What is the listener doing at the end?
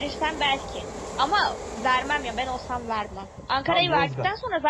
listening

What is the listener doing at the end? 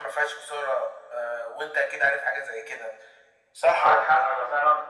taking over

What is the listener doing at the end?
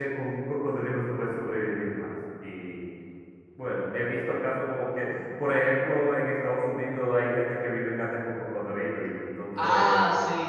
taking over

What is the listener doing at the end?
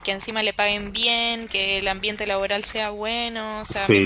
listening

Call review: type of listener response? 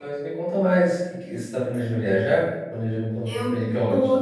taking over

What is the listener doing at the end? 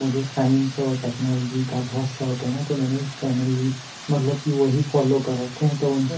taking over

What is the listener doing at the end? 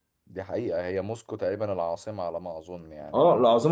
taking over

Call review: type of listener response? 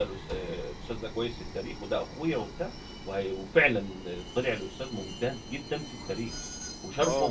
taking over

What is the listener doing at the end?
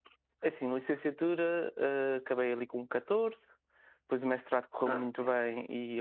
listening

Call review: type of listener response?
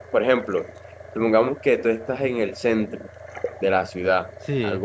listening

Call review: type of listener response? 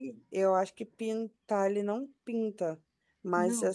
listening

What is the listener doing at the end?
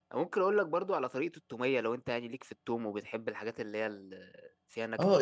taking over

